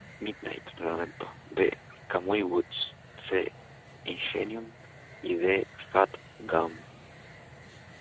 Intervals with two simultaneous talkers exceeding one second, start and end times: none

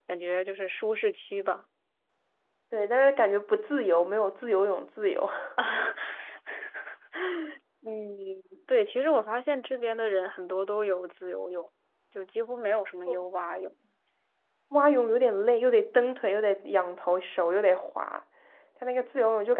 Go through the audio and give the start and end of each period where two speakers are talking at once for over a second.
none

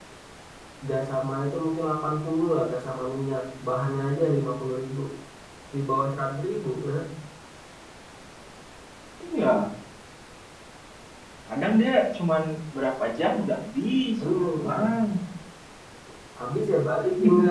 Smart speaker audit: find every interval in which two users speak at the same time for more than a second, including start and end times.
none

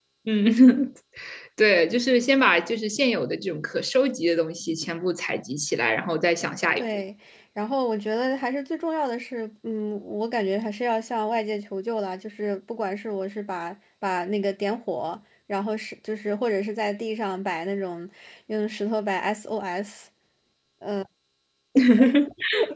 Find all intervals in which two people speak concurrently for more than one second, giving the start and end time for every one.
none

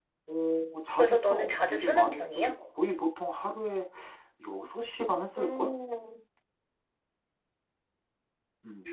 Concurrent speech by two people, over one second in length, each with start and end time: 1.0-2.5

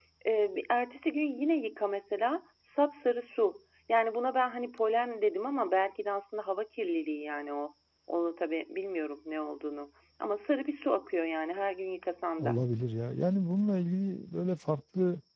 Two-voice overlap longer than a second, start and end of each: none

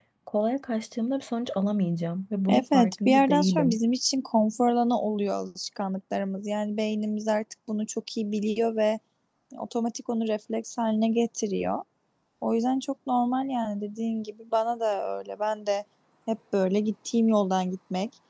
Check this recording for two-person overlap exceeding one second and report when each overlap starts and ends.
2.5-3.8

